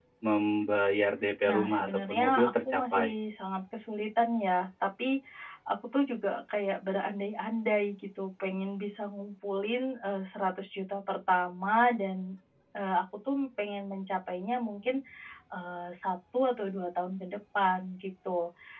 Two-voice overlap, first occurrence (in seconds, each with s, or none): 1.4 s